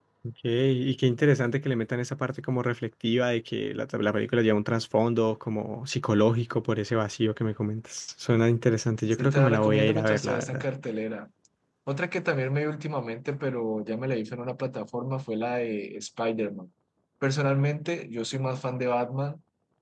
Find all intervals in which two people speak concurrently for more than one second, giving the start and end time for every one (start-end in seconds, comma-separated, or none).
9.1-10.7